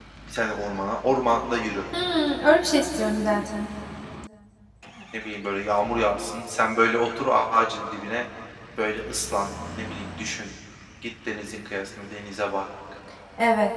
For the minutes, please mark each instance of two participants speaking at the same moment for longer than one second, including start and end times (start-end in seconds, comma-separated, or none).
none